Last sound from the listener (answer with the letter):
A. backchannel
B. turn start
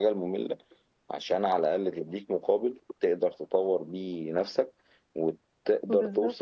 A